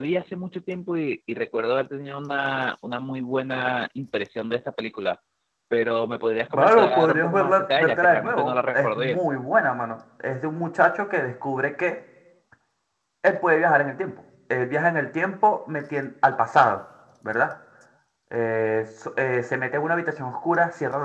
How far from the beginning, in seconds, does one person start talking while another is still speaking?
7 s

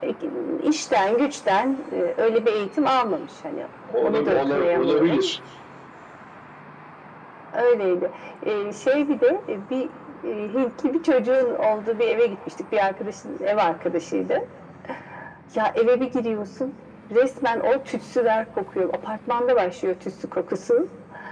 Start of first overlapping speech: 4 s

